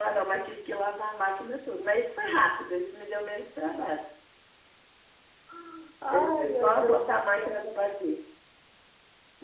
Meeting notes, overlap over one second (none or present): present